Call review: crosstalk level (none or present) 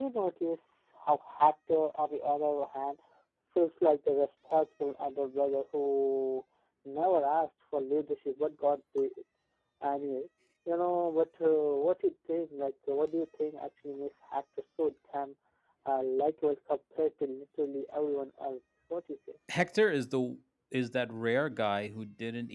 none